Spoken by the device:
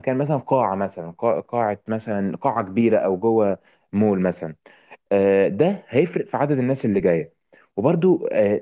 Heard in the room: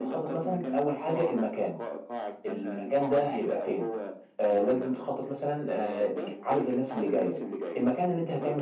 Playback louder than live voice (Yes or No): No